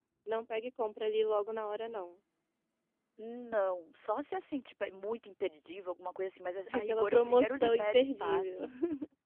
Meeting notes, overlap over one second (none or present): present